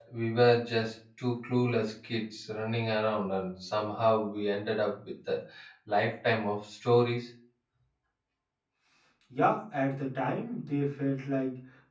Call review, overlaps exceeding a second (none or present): none